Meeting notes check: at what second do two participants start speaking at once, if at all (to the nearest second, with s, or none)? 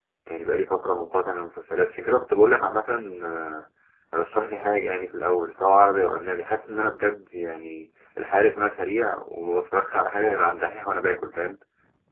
none